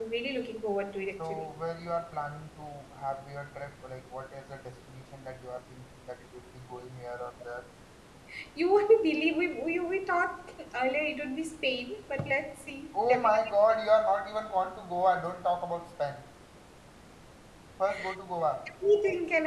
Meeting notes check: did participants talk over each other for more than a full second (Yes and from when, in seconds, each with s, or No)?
No